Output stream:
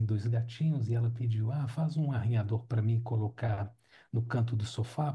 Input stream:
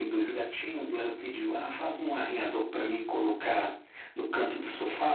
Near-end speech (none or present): none